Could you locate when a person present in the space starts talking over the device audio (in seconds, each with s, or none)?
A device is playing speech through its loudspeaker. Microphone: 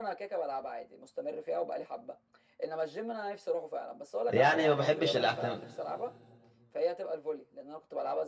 4.3 s